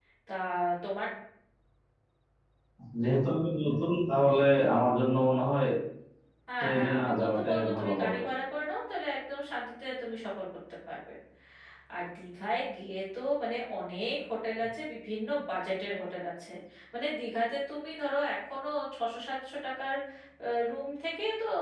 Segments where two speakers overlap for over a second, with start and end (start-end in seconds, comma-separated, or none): 6.6-8.2